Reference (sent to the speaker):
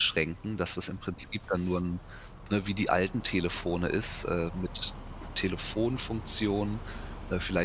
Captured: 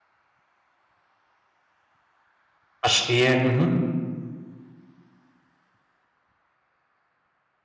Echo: none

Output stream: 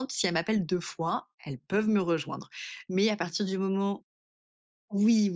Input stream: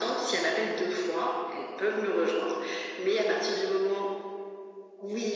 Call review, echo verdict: present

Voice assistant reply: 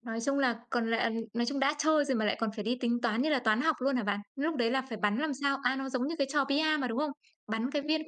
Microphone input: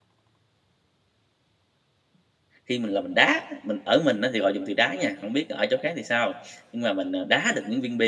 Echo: none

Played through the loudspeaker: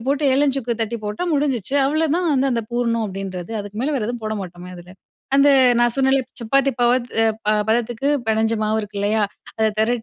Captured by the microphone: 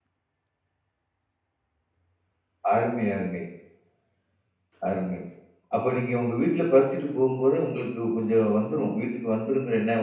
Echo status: none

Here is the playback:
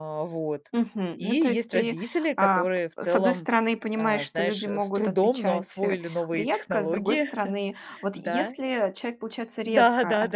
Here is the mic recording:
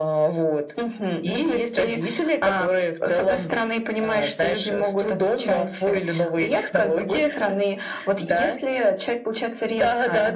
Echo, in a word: present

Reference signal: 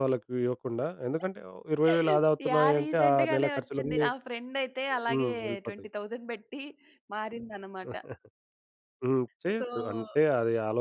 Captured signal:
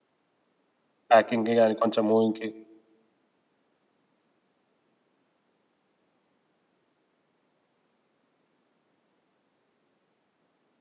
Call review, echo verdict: none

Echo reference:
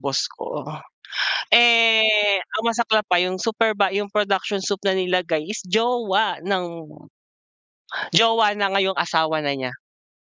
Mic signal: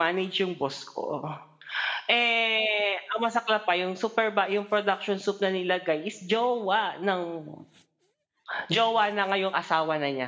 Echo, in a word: present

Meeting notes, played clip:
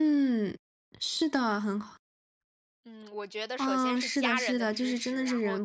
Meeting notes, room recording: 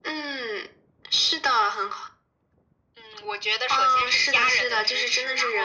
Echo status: present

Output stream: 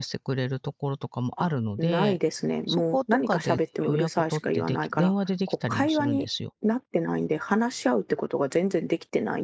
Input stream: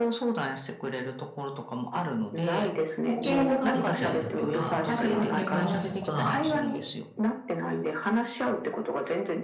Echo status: present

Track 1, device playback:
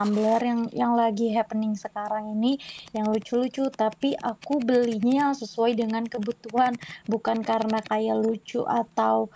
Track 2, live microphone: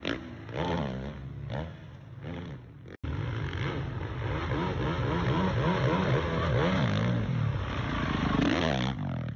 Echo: none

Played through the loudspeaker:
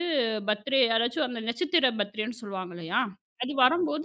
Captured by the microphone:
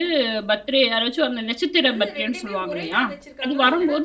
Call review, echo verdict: present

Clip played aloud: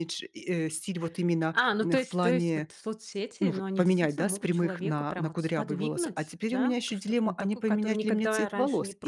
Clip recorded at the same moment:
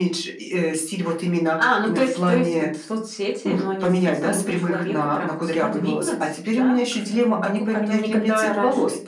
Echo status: present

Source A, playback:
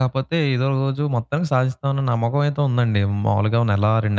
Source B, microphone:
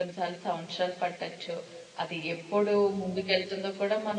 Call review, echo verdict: none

